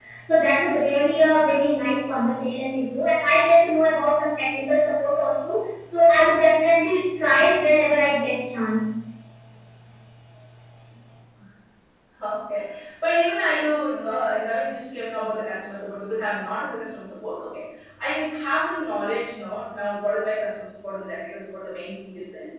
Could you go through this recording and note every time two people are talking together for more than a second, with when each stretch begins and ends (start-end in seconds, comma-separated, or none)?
none